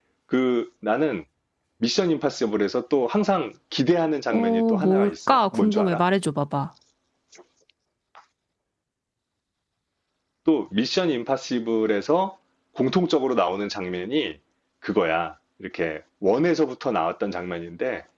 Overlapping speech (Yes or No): Yes